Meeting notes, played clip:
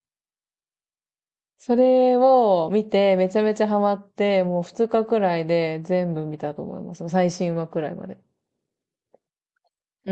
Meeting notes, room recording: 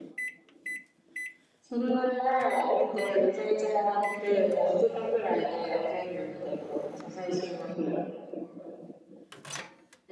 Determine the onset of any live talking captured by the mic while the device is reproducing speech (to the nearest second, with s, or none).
none